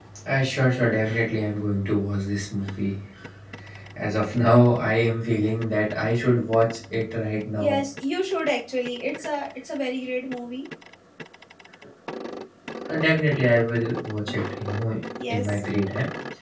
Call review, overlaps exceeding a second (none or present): none